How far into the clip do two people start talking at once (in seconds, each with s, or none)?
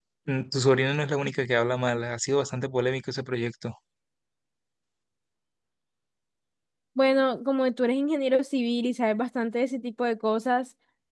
none